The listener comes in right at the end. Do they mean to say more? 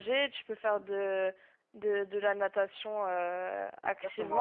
Yes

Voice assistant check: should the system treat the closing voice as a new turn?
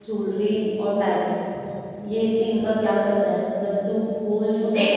Yes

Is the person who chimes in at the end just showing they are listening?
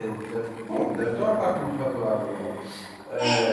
No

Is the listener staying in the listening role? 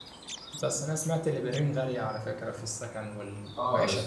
No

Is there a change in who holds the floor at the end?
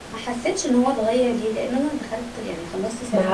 Yes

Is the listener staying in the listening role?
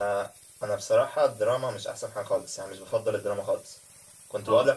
Yes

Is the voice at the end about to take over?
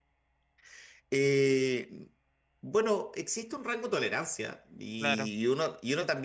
No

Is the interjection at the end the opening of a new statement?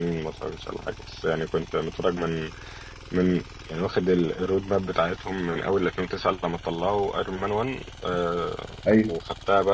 No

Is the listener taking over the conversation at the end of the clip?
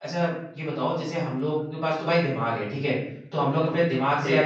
No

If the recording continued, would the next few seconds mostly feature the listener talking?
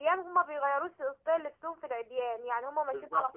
Yes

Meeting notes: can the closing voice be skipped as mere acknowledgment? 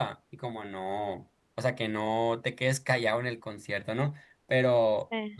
Yes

